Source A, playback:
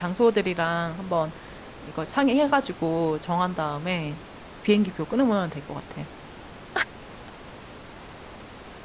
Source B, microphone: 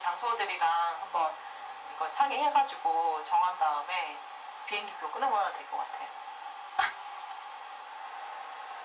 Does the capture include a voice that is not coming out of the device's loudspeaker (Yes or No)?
No